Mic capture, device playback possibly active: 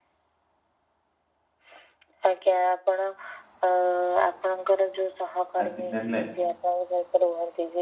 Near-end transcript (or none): ଆଜି ନେଲେ